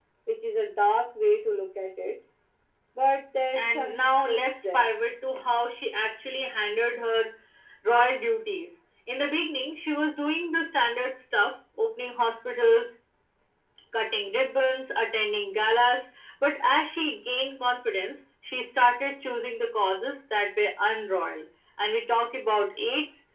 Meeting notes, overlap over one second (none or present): present